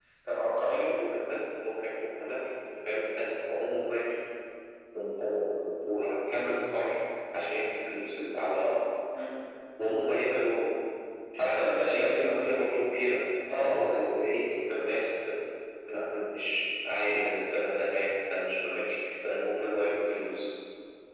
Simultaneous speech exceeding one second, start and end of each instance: 11.4-12.6

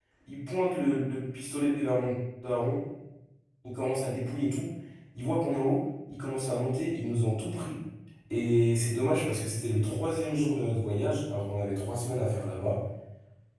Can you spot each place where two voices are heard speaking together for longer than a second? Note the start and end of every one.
none

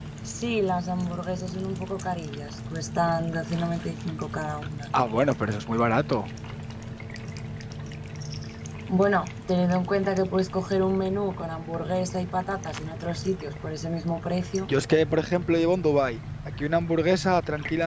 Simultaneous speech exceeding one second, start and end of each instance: none

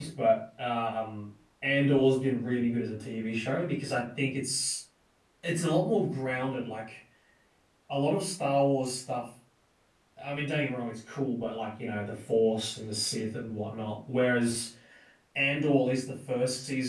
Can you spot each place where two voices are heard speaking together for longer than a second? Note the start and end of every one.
none

